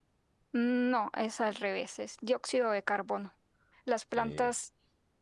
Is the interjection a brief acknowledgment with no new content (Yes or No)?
Yes